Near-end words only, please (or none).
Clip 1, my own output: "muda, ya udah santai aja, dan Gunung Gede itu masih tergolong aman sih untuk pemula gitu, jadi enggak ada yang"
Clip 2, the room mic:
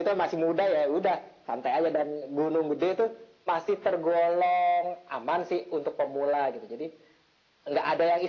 none